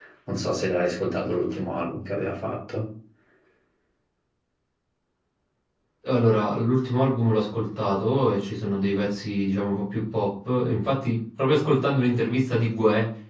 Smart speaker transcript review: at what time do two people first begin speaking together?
none

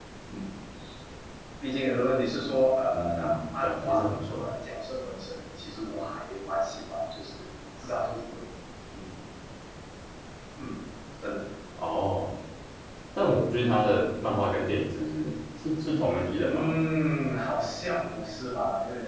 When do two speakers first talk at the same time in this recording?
2.9 s

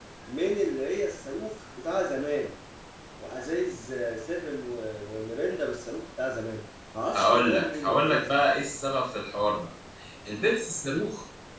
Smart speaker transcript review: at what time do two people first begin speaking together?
7.1 s

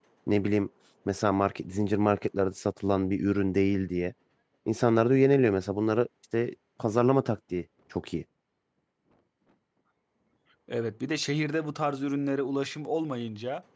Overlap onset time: none

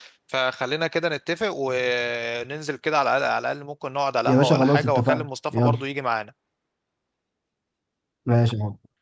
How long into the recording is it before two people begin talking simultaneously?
4.2 s

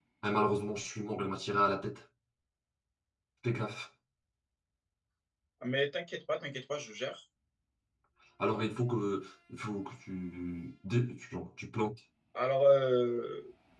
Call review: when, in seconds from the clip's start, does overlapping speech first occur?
none

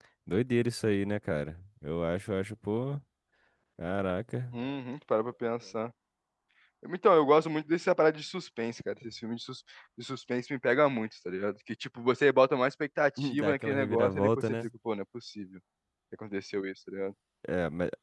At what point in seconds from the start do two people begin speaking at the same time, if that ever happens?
13.4 s

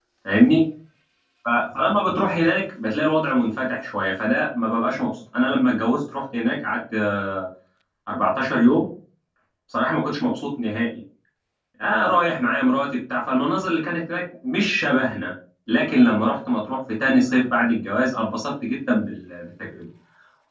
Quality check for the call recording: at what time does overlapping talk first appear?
none

